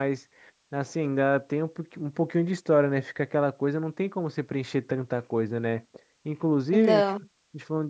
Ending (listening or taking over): listening